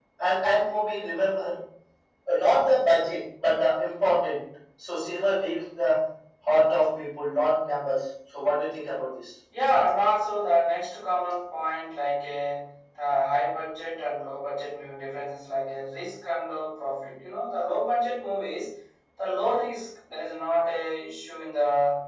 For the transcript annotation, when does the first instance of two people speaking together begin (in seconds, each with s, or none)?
none